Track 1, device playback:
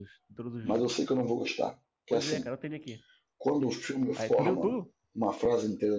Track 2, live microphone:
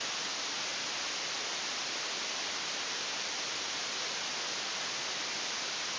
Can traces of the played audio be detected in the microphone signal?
No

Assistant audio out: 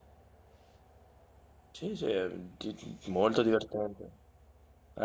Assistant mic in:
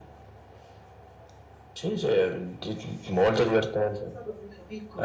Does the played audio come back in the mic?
Yes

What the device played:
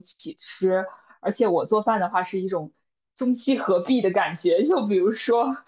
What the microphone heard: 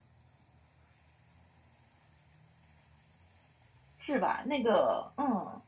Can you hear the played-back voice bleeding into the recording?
No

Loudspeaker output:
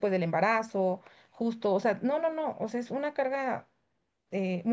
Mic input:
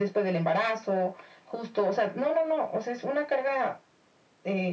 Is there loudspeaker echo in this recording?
Yes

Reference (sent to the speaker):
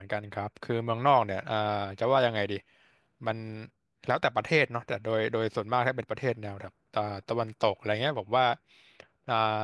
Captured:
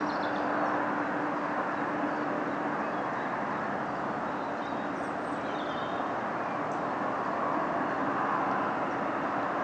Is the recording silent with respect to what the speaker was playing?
Yes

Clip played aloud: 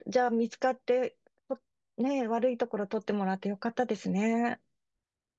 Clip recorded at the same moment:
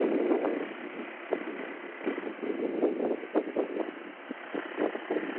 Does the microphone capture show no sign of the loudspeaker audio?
Yes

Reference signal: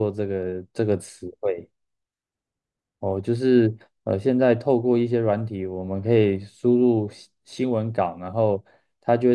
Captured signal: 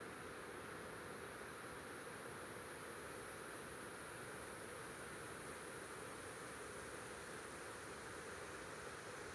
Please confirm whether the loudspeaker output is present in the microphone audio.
No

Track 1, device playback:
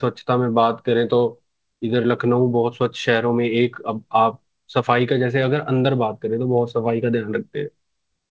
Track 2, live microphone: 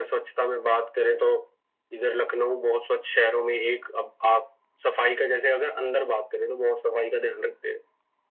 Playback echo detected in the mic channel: Yes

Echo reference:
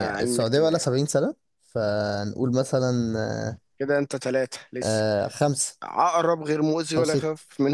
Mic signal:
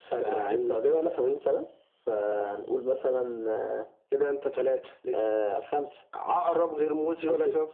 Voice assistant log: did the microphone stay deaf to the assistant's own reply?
No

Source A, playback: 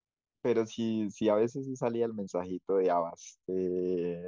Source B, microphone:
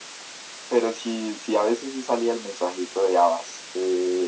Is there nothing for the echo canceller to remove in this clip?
No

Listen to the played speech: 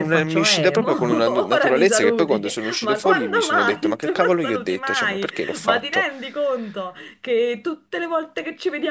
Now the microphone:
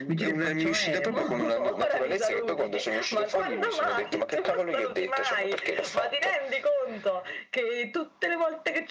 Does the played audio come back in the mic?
Yes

